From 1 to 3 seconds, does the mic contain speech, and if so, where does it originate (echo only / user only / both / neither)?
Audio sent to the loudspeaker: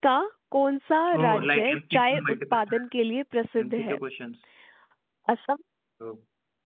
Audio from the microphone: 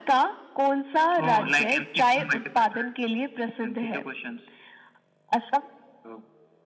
echo only